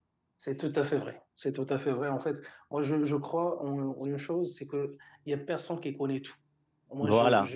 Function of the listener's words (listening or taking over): listening